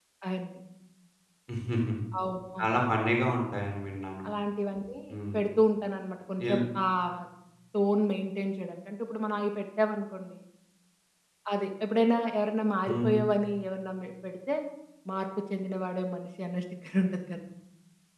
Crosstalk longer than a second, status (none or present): none